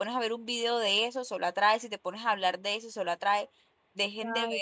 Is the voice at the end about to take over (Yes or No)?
No